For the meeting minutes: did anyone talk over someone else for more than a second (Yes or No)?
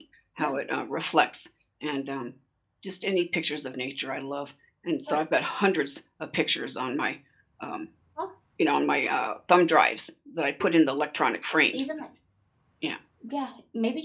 No